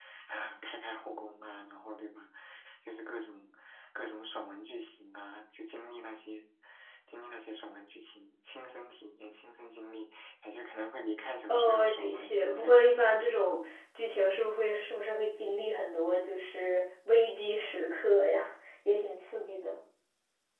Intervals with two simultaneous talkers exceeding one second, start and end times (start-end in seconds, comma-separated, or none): 11.5-12.9